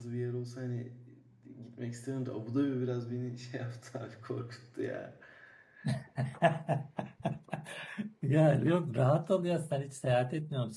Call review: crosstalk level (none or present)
none